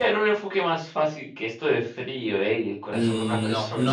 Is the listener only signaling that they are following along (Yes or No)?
No